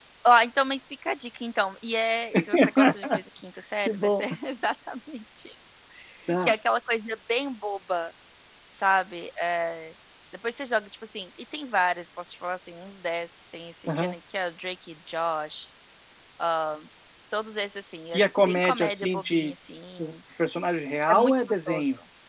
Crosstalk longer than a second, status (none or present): present